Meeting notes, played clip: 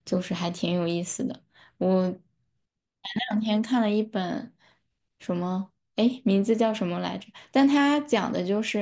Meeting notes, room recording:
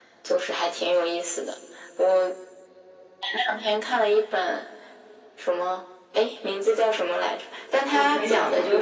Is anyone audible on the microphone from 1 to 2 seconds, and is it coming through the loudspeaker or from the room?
echo only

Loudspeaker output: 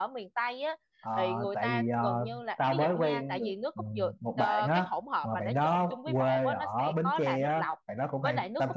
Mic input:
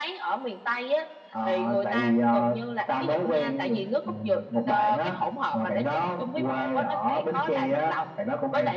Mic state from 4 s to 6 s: echo only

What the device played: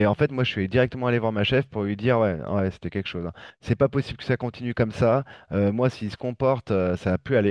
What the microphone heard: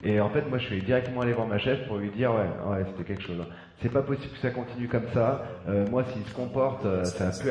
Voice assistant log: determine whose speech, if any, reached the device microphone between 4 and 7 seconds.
both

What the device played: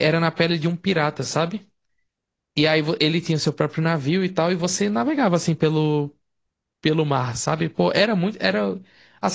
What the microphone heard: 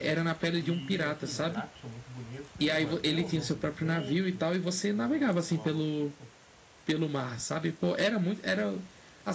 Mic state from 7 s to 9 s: echo only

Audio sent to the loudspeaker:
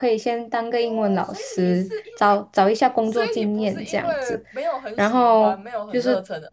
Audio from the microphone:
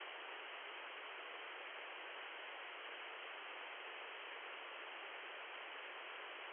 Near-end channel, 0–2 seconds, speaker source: neither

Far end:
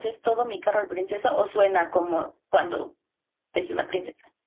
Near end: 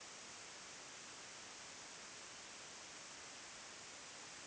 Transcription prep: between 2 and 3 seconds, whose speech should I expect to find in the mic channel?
neither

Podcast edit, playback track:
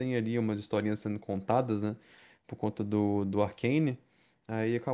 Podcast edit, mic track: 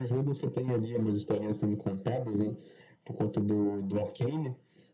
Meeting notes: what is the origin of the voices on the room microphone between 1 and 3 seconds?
echo only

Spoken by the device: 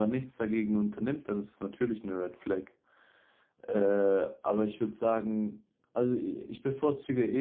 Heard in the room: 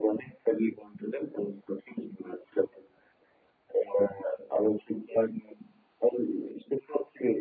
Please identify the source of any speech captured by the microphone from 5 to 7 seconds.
echo only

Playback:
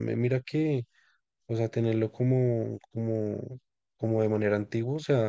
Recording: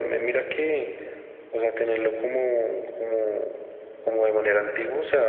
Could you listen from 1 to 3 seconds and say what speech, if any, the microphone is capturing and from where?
echo only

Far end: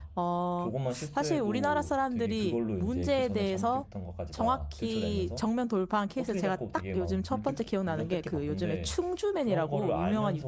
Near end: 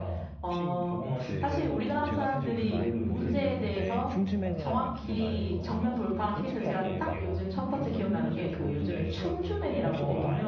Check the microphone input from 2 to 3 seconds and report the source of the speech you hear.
both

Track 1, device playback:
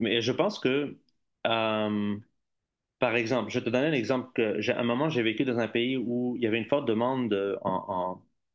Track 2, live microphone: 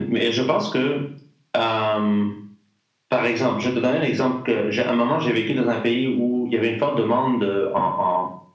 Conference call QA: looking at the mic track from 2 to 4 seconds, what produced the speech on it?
echo only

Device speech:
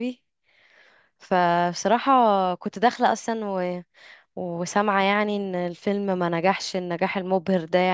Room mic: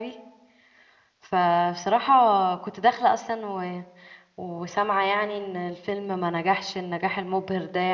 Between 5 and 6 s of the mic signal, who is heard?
echo only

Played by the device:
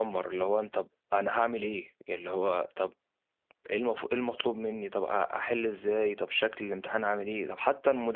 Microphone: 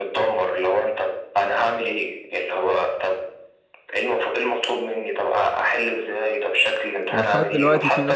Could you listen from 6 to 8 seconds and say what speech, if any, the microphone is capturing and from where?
both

